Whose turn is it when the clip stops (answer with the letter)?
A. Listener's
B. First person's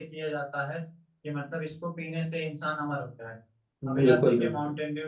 B